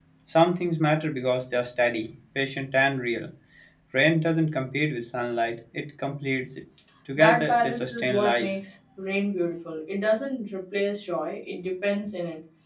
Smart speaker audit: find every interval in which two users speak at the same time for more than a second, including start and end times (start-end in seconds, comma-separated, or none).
7.1-8.6